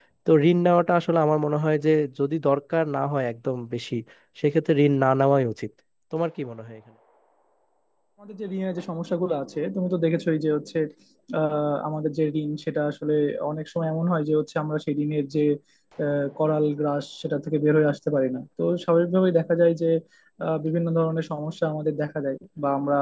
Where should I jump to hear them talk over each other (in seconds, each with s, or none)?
none